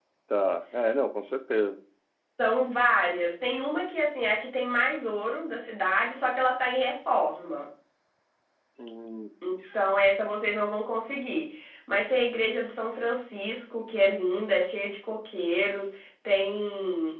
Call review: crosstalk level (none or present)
none